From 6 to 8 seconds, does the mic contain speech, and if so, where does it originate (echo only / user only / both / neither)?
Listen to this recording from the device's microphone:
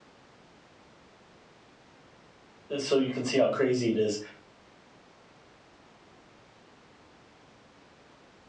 neither